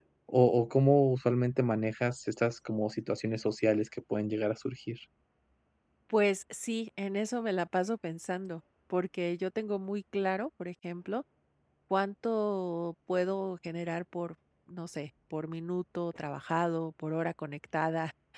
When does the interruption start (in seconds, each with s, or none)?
none